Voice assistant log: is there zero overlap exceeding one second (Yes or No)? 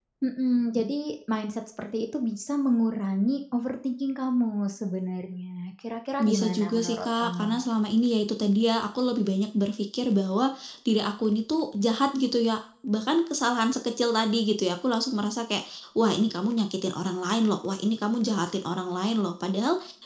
No